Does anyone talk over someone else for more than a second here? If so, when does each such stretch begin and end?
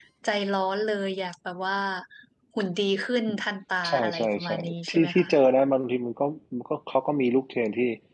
3.9-5.3

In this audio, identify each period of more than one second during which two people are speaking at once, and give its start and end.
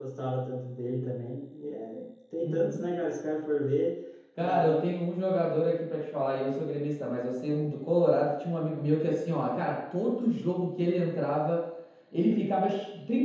none

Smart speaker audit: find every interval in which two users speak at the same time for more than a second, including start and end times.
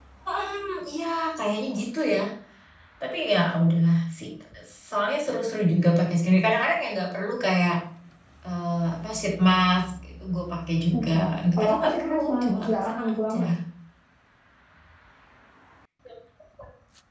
11.6-13.4

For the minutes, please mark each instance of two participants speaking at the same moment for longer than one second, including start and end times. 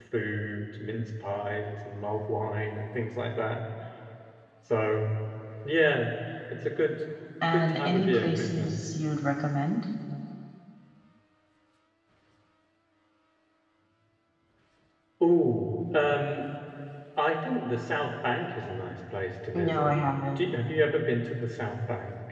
7.5-8.8

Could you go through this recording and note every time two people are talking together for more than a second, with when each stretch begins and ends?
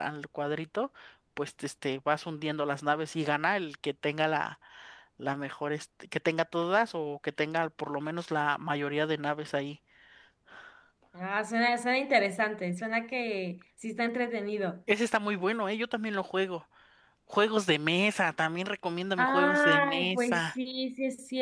19.2-20.4

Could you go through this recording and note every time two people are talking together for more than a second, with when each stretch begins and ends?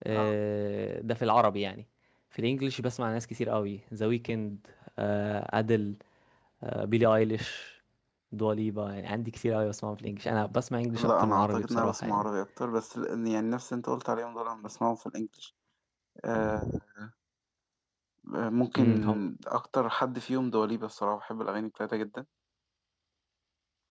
11.0-12.3

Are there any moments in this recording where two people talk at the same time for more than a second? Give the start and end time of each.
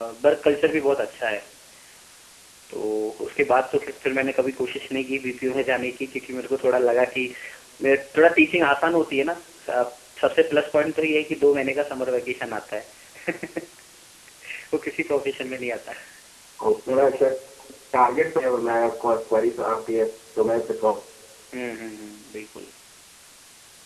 none

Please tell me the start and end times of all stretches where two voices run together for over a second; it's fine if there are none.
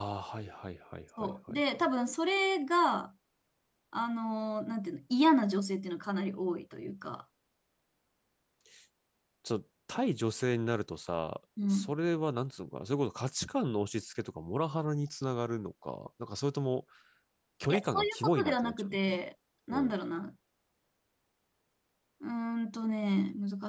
17.7-19.2

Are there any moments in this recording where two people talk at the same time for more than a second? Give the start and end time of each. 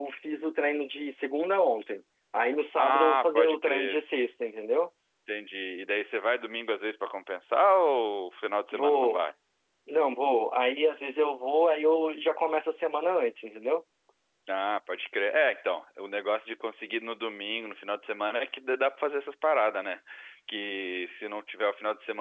2.8-4.0

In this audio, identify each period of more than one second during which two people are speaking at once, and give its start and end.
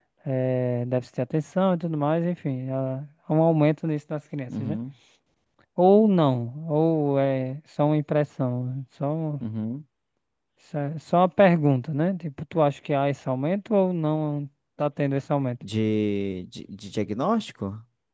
none

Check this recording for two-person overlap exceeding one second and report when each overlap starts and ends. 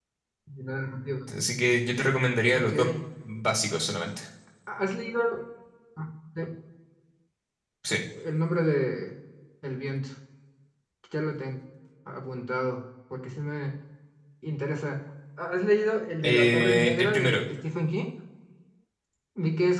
16.2-17.4

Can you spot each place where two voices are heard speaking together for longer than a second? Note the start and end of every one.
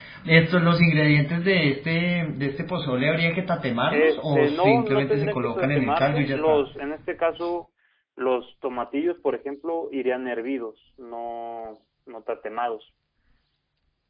3.9-6.7

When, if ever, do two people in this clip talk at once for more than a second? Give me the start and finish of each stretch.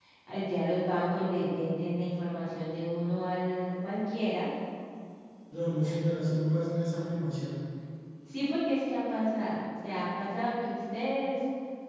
none

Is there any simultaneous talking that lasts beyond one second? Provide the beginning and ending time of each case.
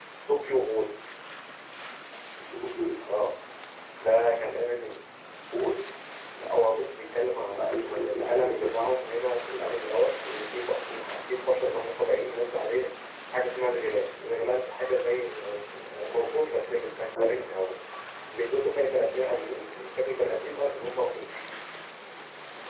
7.5-8.8

